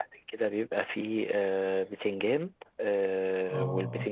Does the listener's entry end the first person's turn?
No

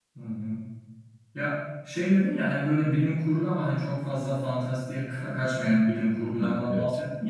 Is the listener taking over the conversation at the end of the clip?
No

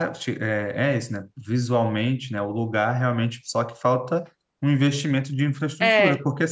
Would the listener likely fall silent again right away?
Yes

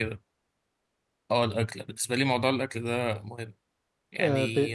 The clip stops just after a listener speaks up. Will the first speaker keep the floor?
No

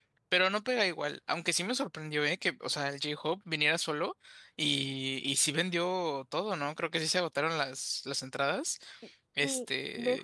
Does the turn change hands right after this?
Yes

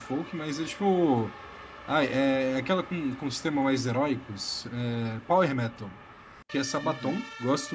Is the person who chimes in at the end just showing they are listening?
Yes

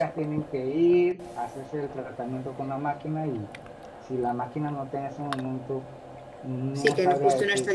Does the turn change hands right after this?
Yes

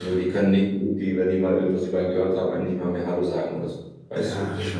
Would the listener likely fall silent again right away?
No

